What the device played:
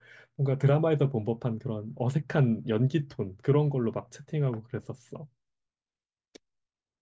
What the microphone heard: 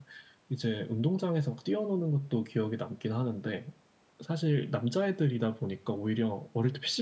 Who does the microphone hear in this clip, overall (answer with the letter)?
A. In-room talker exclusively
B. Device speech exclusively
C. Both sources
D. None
A